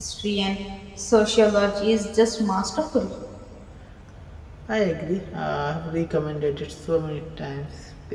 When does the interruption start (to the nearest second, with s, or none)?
none